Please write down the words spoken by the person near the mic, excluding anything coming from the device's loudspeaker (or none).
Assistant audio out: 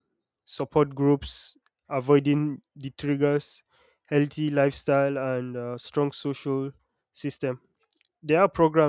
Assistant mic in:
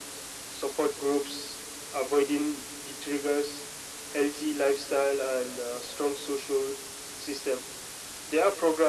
none